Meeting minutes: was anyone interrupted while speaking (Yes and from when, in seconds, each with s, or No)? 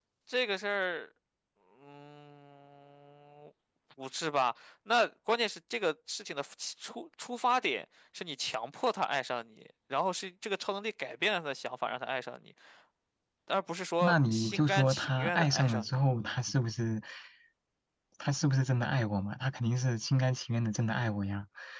Yes, from 14.0 s